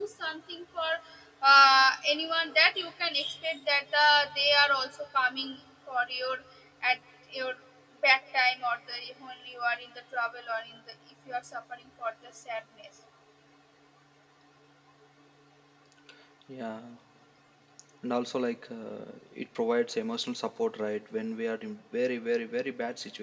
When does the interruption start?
none

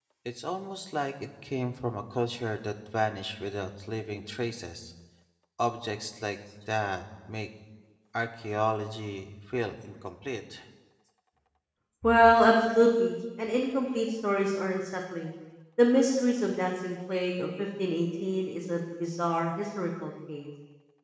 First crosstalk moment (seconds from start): none

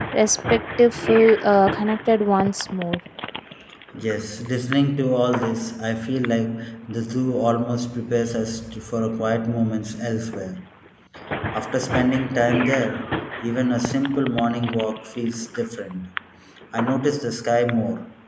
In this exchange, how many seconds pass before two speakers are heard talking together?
none

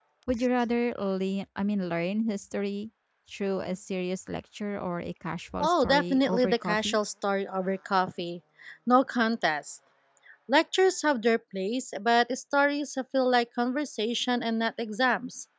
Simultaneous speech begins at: 5.6 s

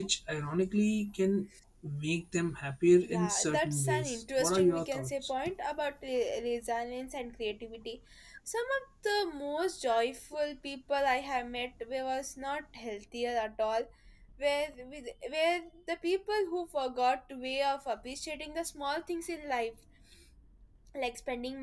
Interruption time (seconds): 3.0 s

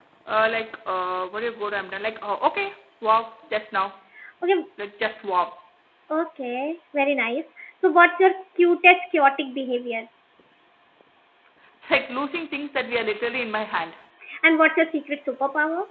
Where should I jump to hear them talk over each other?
none

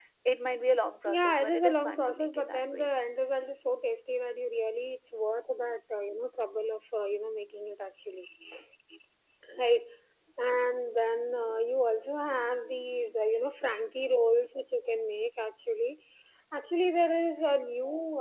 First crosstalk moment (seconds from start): 1.0 s

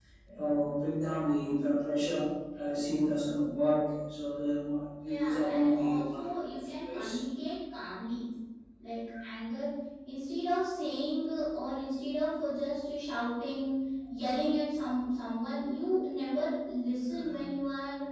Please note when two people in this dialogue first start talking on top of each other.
5.0 s

